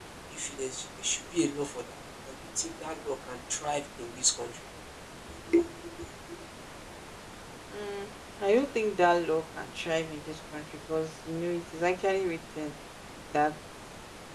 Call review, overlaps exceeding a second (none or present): none